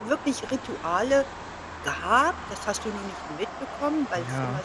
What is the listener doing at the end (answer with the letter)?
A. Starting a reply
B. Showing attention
B